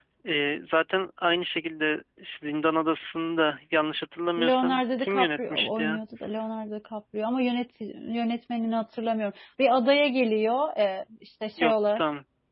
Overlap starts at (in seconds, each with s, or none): 4.4 s